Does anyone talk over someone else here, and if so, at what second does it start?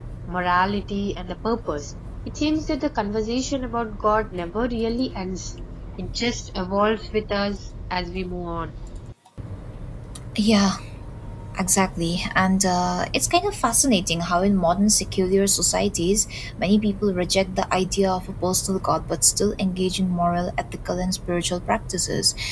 none

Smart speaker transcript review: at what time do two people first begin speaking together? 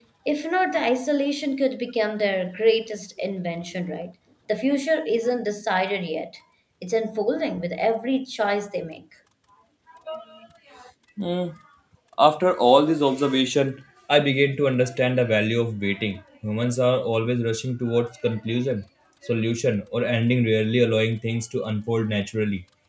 none

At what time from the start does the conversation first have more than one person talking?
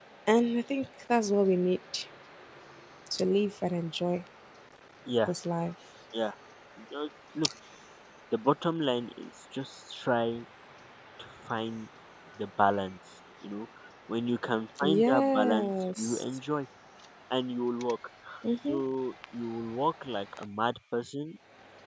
14.8 s

